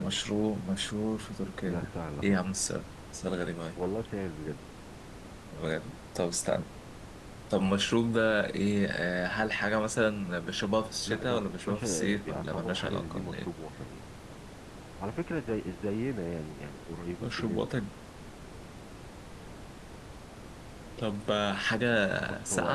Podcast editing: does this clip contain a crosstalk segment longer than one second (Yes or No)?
Yes